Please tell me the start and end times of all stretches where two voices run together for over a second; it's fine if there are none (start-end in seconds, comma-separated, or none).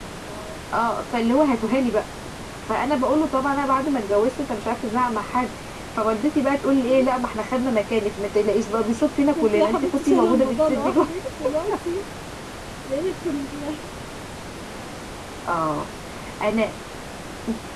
9.3-11.0